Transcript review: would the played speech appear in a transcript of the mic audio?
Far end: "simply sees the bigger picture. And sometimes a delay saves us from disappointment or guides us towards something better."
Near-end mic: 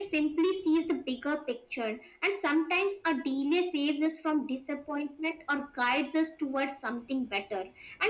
Yes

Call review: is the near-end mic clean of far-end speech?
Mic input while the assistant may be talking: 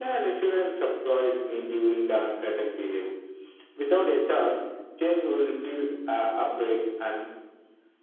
No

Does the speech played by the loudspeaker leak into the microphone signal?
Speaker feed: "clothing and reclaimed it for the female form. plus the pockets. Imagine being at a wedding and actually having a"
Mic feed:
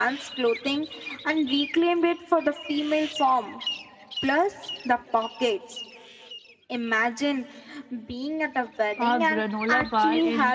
Yes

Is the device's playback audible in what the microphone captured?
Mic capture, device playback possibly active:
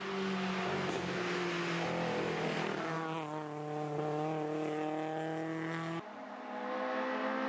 No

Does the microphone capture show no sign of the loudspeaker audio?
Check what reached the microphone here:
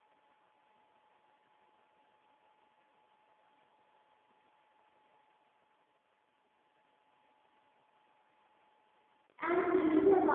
Yes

